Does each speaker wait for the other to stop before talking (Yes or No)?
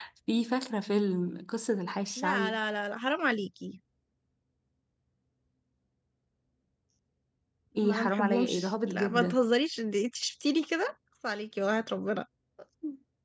No